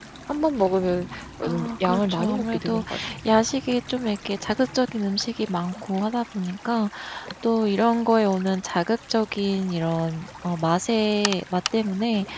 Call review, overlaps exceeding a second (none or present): present